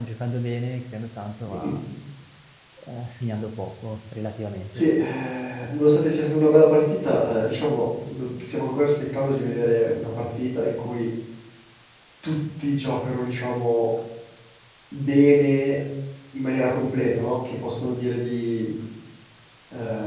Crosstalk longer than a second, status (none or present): none